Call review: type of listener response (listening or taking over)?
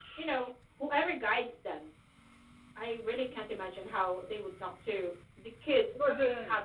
taking over